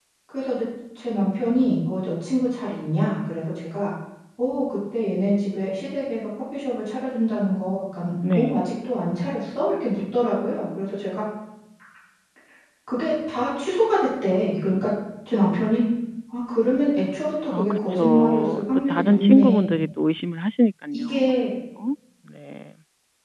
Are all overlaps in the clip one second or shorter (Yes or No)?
No